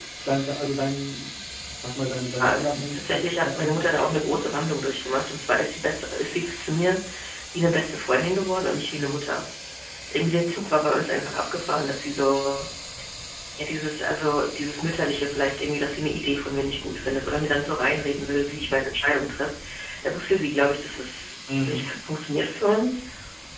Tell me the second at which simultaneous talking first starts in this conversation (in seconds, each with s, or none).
2.4 s